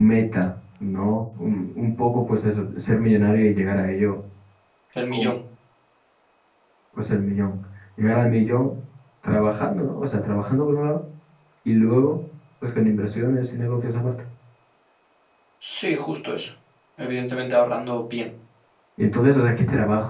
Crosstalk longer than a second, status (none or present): none